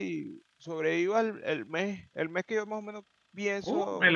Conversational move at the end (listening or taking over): taking over